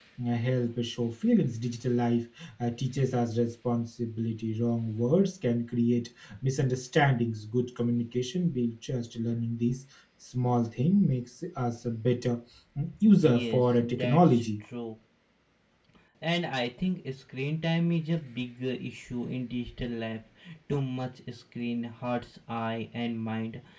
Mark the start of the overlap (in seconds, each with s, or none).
13.2 s